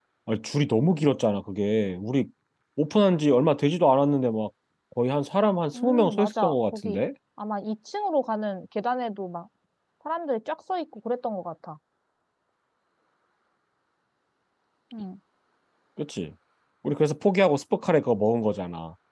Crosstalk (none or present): present